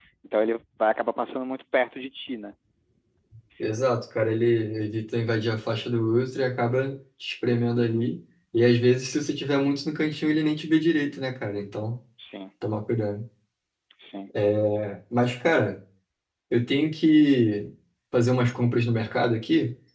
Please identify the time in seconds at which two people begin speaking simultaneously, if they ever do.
none

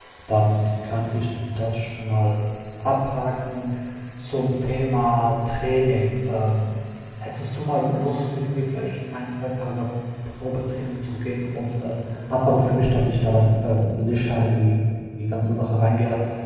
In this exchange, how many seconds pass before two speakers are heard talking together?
none

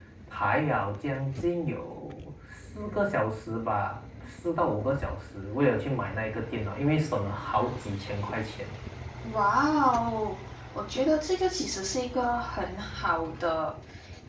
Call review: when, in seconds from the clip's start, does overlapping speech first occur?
none

